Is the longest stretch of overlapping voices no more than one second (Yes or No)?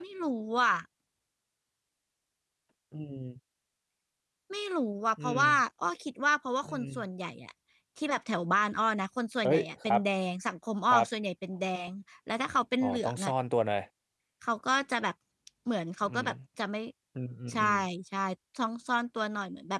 Yes